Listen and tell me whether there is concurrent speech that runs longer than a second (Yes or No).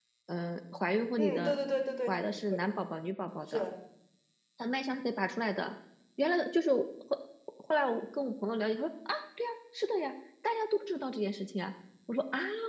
No